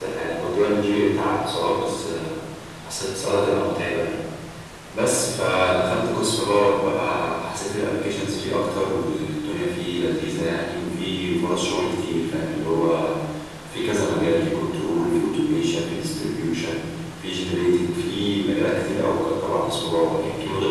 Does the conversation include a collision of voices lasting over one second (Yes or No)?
No